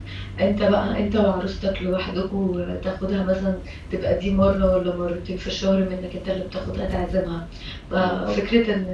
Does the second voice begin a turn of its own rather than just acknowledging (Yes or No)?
No